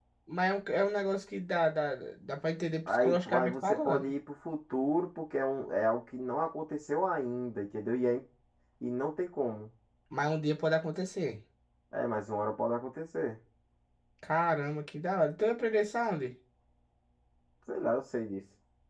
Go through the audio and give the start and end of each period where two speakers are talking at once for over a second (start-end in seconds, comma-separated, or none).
2.9-4.1